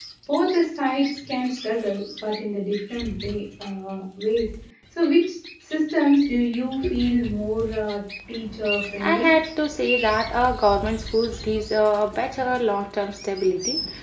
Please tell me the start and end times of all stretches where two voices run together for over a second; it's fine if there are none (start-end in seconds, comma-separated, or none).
none